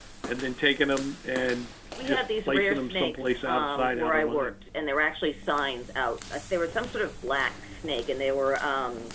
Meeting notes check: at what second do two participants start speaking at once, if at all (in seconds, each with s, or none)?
2.0 s